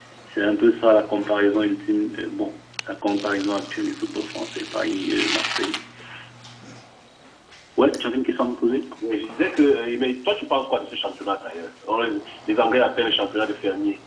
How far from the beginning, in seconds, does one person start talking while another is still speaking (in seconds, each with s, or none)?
none